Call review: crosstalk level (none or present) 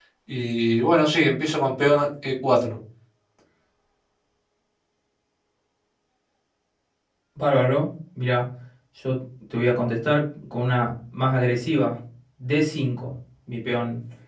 none